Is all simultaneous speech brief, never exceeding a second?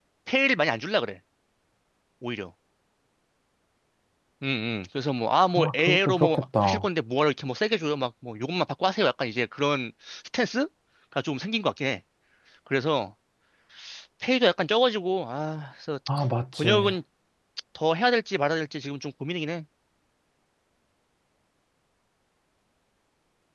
No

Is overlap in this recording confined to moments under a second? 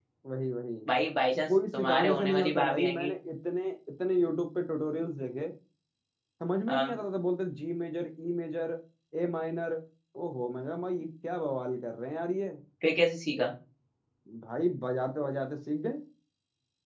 No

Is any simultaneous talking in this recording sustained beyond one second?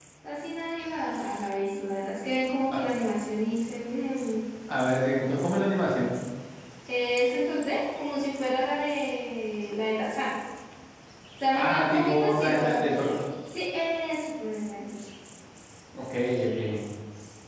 Yes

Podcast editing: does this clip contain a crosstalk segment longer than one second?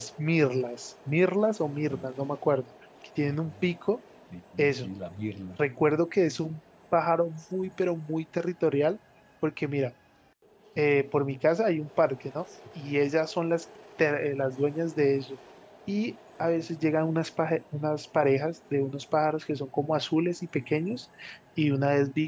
No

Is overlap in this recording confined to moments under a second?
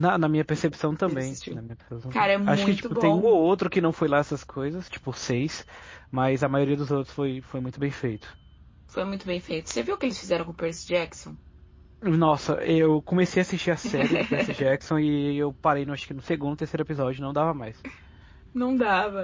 No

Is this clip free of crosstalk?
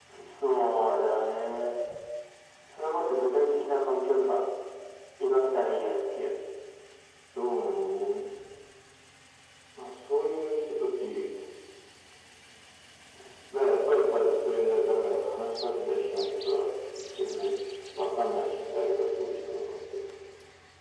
Yes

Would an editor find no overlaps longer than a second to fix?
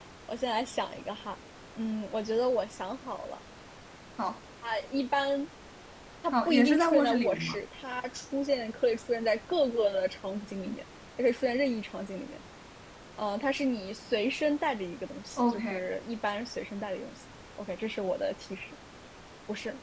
No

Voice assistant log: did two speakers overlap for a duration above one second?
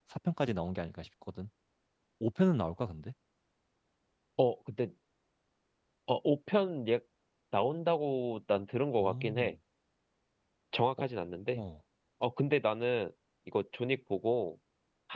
No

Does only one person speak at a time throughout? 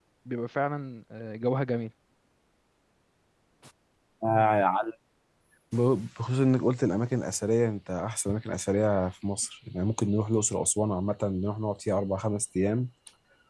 Yes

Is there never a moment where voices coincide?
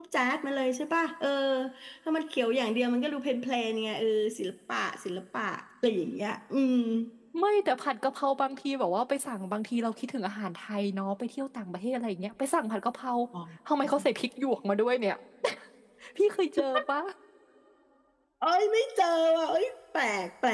Yes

